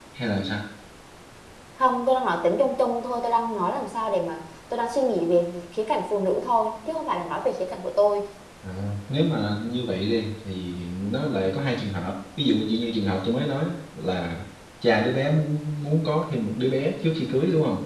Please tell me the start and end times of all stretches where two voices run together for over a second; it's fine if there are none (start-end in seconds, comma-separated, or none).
none